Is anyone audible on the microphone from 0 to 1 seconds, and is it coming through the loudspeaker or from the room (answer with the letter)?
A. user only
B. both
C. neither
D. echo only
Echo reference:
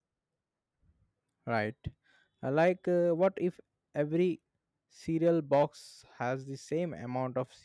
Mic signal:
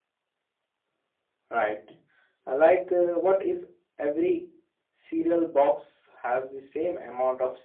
C